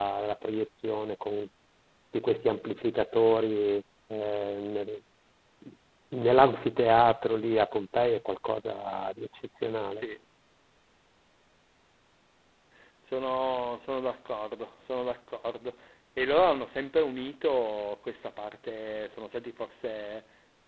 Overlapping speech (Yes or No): No